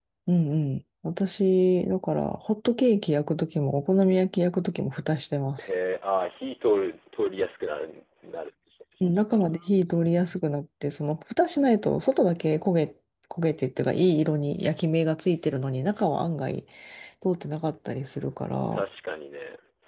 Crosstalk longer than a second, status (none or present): none